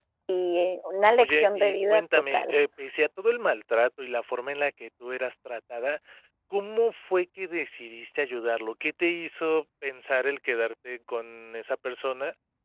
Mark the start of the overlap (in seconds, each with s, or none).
1.2 s